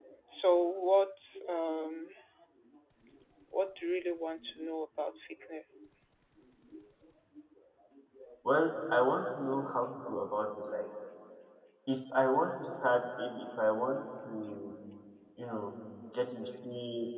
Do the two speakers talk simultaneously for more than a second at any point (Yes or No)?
No